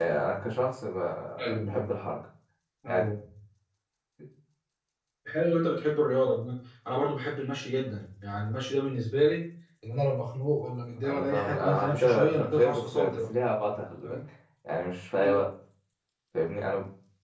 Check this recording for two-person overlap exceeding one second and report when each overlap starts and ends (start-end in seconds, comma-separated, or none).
11.0-13.2